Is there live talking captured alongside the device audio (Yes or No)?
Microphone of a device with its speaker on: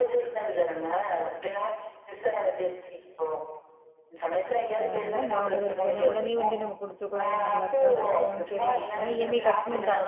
Yes